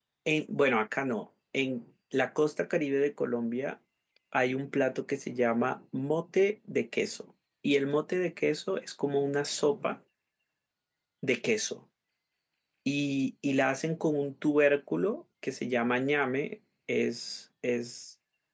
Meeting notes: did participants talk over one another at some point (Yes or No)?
No